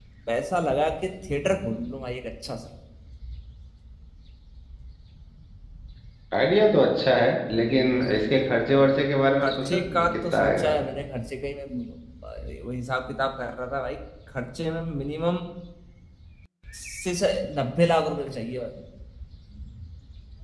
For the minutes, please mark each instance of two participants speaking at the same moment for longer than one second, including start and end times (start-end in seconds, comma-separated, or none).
9.4-10.7